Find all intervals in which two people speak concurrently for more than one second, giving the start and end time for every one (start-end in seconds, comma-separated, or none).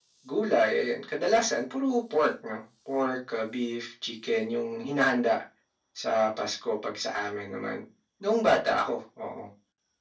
none